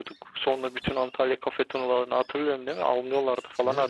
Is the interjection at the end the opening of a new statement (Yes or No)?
Yes